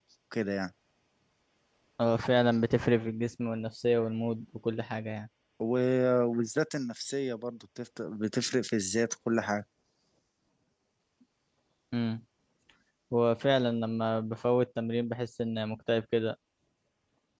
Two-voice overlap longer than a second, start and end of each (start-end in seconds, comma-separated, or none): none